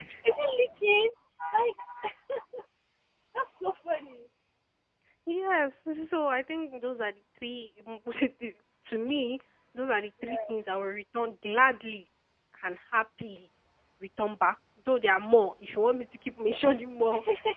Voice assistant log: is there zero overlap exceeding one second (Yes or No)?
Yes